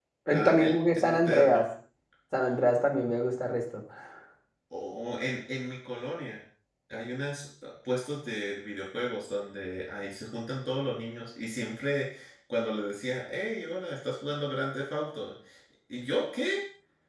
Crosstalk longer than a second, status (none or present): present